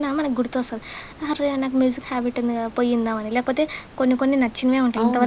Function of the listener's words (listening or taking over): taking over